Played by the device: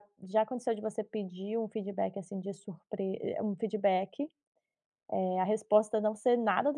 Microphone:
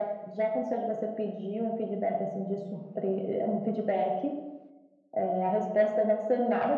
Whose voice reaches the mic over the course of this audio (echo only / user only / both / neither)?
echo only